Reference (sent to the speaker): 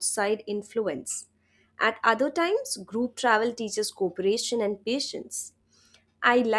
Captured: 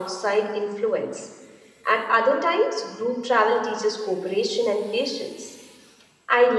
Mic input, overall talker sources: echo only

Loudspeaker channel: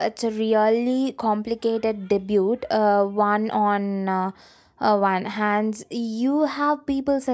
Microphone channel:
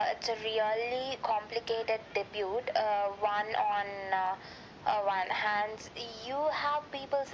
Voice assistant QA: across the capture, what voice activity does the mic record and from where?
echo only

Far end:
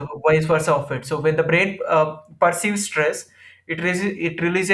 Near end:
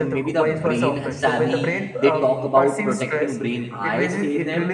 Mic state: both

